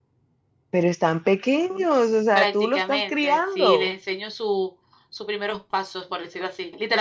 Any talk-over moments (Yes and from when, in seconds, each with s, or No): Yes, from 2.4 s